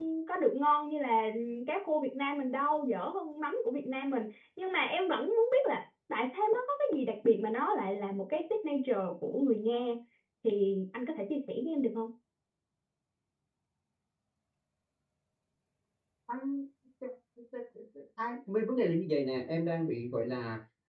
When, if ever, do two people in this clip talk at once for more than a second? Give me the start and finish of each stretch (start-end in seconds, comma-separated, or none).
none